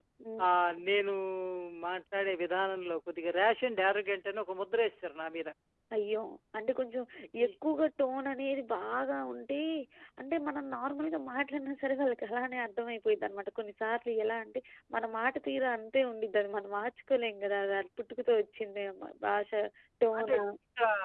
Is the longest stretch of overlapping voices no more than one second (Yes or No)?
Yes